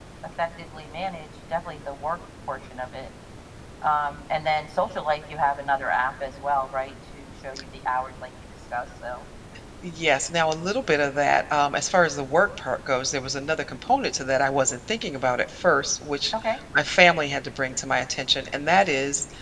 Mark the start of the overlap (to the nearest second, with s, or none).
none